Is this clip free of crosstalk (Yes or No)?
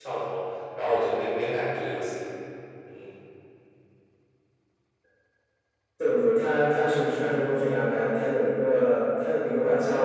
Yes